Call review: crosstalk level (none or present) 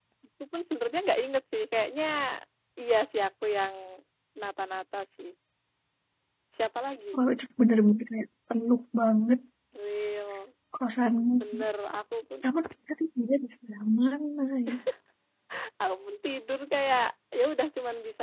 none